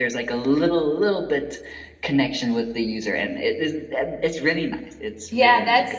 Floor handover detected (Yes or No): Yes